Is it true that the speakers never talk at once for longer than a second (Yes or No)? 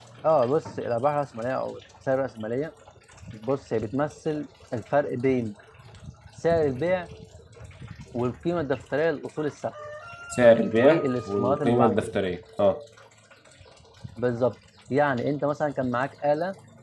No